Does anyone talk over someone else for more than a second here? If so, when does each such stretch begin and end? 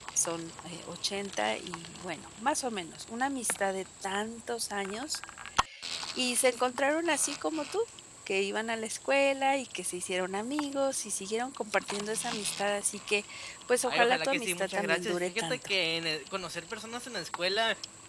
13.9-15.7

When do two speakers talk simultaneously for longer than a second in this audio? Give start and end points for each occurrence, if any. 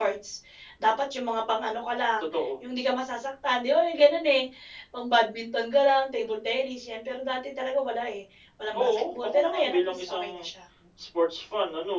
8.7-10.4

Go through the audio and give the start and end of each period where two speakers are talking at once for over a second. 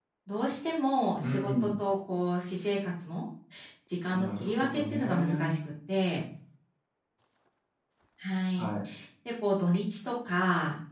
4.1-5.5

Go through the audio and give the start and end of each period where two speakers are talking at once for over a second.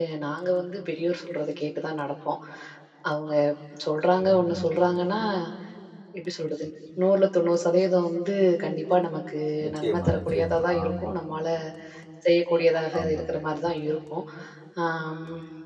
9.8-11.1

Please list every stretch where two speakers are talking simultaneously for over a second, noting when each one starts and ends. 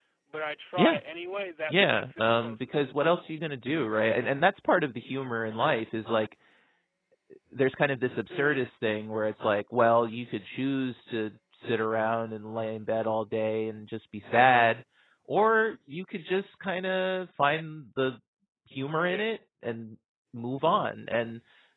1.7-3.3

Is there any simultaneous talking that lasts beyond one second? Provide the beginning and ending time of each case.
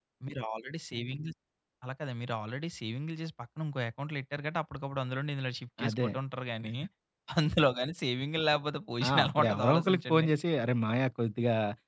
9.1-10.3

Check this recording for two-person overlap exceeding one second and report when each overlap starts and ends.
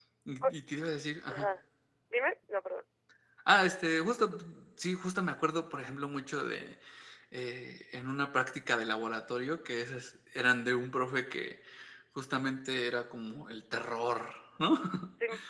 none

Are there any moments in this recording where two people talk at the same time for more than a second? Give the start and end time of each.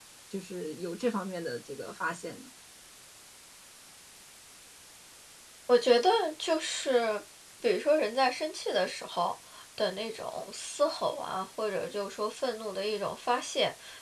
none

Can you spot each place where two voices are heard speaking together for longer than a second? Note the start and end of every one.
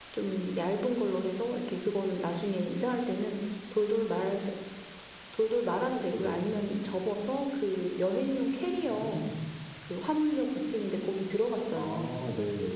none

